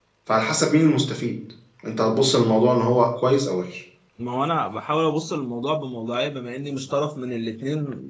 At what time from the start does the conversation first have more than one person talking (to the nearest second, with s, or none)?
none